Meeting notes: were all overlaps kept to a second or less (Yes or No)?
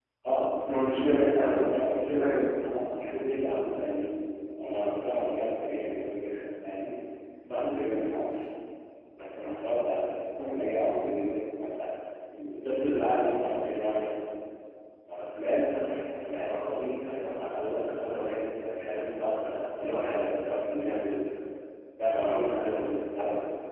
No